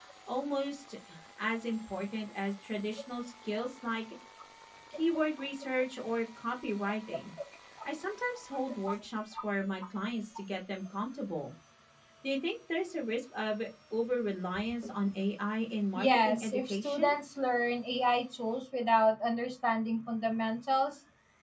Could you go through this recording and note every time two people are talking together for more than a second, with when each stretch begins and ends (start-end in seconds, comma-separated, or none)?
15.9-17.1